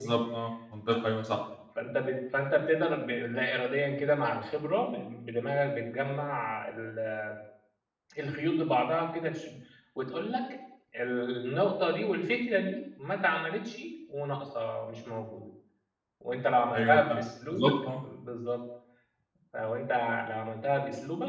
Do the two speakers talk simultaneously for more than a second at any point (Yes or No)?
Yes